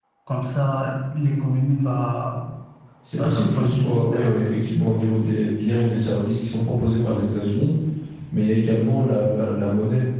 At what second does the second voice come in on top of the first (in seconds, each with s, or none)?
3.2 s